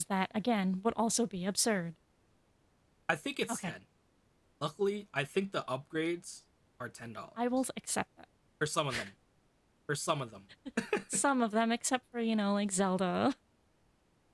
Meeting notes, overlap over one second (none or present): none